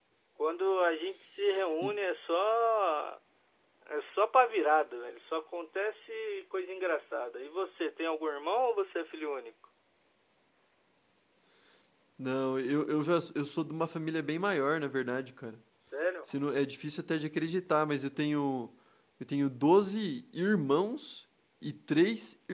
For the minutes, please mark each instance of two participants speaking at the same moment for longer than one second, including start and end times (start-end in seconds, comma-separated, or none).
none